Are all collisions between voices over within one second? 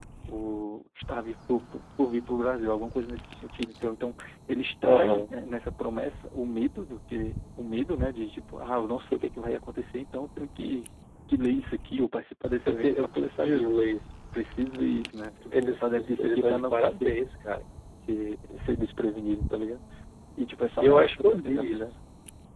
No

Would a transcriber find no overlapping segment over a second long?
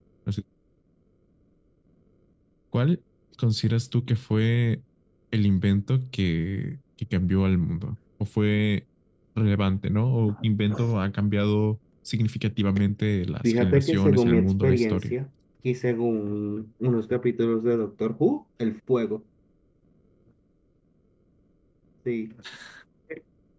No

